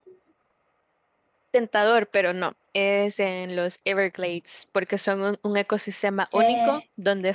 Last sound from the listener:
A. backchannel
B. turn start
A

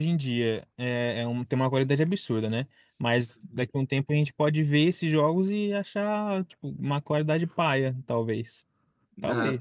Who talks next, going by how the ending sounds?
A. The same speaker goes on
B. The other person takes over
B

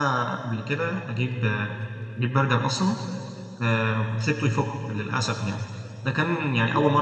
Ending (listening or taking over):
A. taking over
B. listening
B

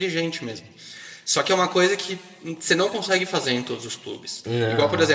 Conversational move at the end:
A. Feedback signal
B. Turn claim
A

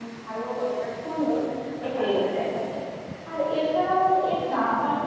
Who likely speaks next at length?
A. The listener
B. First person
B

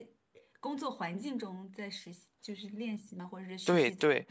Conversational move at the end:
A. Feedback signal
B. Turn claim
B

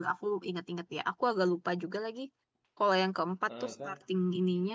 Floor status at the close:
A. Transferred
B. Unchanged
B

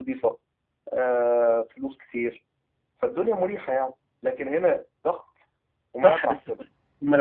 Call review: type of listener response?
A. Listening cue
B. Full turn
B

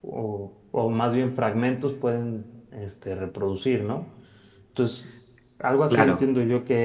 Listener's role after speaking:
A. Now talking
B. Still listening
B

